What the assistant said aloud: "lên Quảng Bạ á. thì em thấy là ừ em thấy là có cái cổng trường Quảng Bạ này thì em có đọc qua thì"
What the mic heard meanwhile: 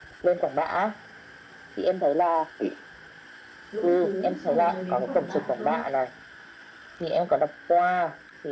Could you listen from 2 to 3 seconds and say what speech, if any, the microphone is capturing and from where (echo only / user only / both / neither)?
echo only